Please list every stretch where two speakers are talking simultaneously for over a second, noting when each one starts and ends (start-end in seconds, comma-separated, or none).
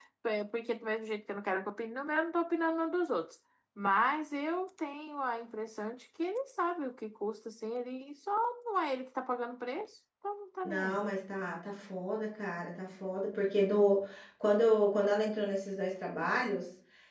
none